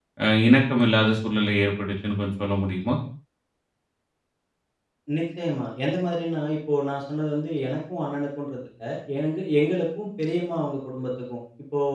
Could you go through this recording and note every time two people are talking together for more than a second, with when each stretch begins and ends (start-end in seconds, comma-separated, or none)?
none